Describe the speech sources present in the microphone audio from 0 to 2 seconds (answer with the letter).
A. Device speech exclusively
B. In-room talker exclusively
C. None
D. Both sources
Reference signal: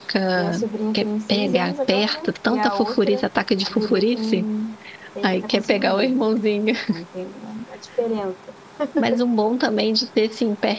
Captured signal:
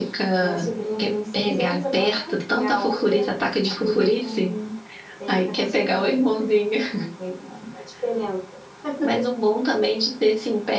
A